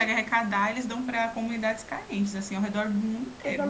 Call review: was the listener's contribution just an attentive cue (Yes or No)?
No